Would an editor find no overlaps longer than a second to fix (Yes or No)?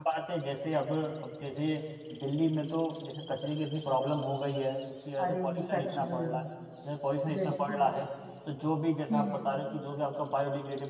No